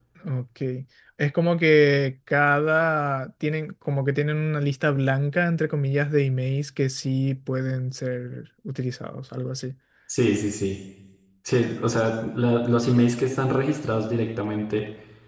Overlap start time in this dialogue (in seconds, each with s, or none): none